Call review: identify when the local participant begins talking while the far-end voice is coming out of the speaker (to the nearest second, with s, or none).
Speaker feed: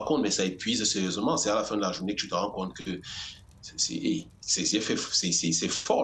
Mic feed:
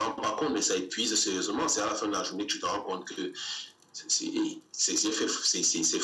none